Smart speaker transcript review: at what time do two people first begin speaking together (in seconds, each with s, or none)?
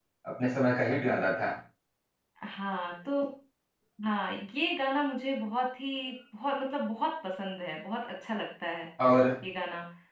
none